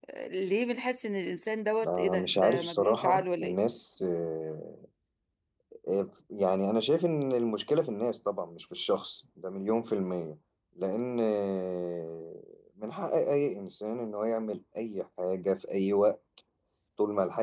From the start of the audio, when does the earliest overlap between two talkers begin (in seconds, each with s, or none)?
1.8 s